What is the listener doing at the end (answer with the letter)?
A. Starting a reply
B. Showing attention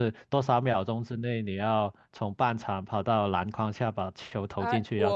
A